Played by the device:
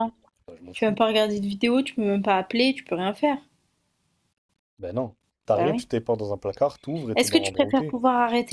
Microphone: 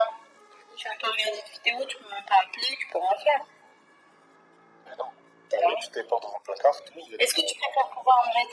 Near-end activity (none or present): none